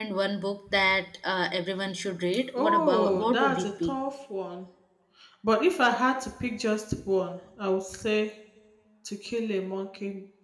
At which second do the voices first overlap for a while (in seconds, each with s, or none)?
2.5 s